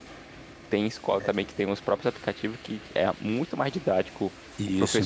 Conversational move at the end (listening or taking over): listening